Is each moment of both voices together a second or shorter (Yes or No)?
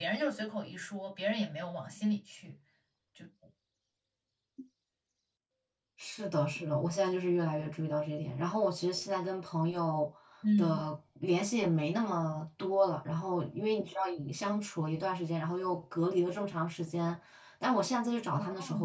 Yes